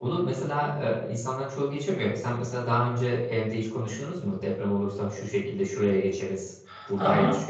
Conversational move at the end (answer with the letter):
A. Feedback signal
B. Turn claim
B